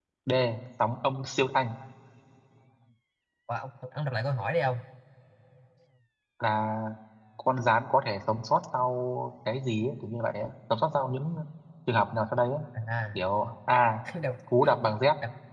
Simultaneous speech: No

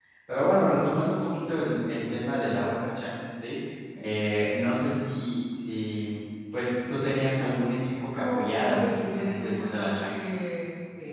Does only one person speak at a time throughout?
No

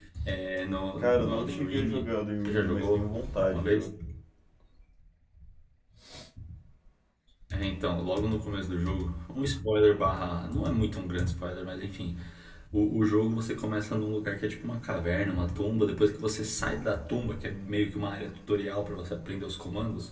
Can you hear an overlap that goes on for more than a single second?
Yes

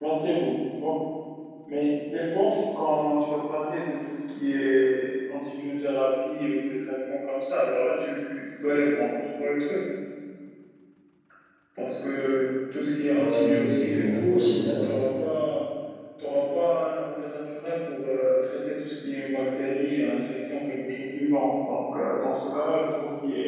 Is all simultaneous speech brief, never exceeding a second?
No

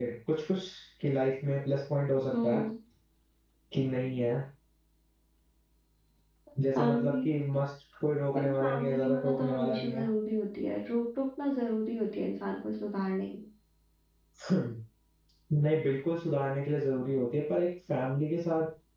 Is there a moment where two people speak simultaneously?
Yes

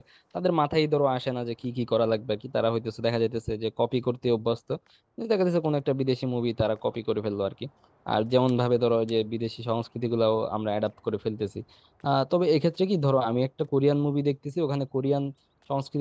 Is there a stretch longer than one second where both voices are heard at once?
No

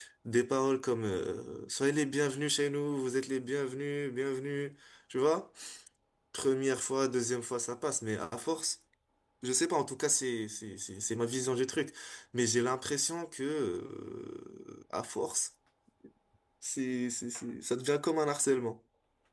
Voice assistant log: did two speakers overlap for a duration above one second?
No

